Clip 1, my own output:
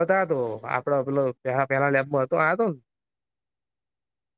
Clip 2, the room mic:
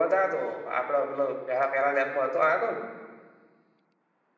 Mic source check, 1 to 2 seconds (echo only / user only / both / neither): echo only